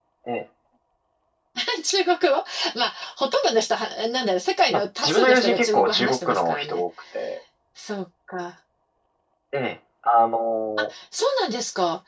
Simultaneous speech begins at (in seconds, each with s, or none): 4.7 s